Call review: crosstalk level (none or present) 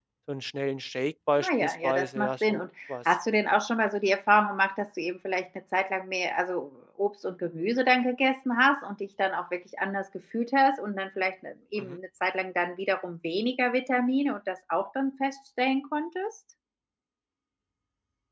present